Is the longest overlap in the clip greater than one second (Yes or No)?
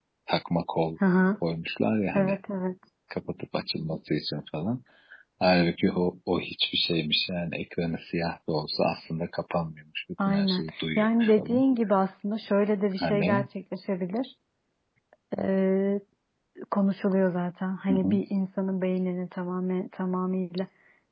Yes